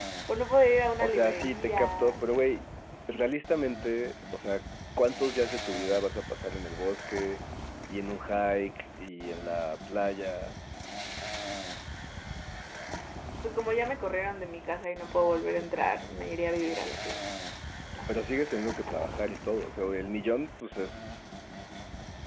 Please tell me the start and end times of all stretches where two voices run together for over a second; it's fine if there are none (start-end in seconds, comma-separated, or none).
1.0-2.2